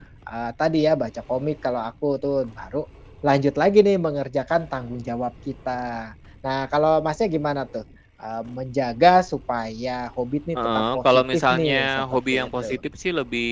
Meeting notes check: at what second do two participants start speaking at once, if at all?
10.6 s

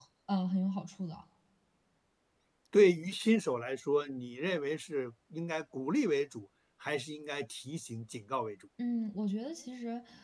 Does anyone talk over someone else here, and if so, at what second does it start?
none

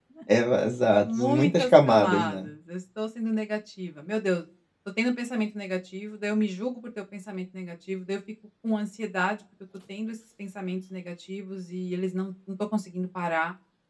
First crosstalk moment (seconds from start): 1.0 s

